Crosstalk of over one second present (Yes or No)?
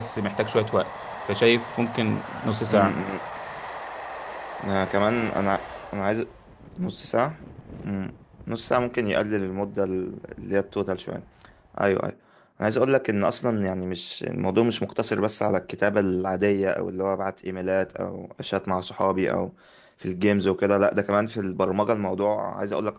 No